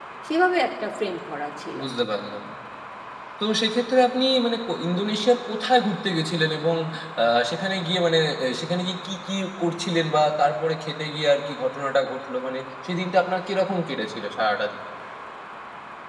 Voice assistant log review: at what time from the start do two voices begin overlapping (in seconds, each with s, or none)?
none